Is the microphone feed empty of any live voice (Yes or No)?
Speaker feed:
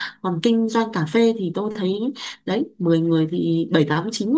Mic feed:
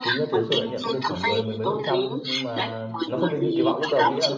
No